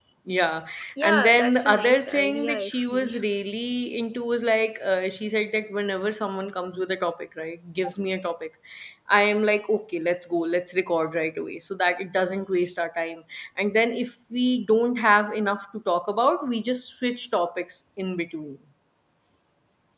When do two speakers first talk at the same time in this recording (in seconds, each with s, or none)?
1.0 s